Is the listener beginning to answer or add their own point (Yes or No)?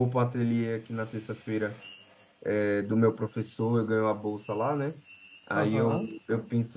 No